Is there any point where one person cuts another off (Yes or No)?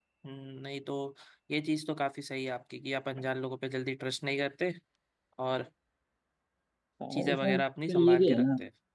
Yes